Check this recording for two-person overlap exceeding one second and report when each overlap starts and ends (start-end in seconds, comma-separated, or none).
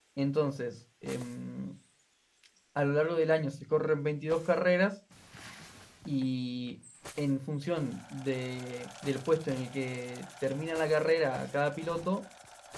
none